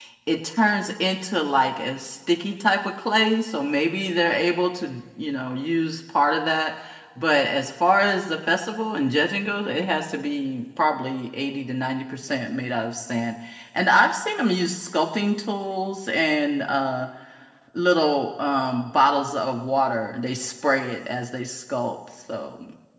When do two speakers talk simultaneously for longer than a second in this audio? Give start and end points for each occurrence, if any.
none

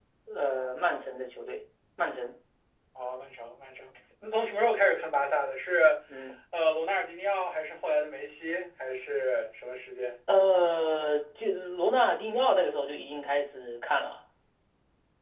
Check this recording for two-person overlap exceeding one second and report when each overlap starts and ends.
none

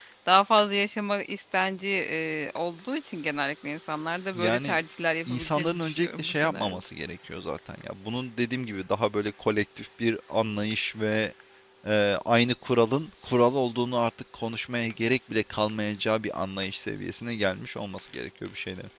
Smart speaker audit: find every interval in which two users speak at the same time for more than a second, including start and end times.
5.3-6.9

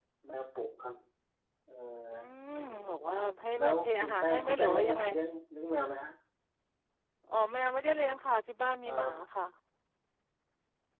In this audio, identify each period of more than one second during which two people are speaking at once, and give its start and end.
3.6-5.0

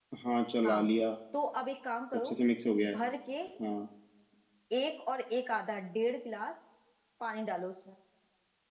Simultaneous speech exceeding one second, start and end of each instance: none

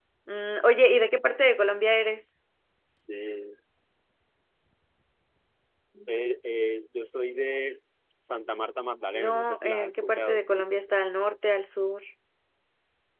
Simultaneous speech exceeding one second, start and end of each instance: 9.2-10.4

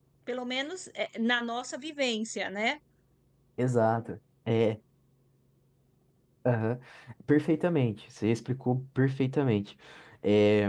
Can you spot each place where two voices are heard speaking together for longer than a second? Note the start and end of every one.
none

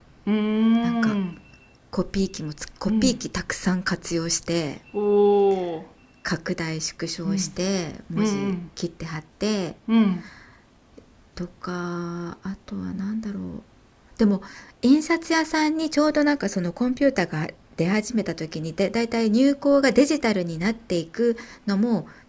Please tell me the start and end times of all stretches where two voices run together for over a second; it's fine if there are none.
none

